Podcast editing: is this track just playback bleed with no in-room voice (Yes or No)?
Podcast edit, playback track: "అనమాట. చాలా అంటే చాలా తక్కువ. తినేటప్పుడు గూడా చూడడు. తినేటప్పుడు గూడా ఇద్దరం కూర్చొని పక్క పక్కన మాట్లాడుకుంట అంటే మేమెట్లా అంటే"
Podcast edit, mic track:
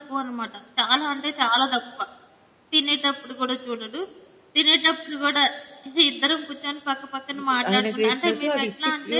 No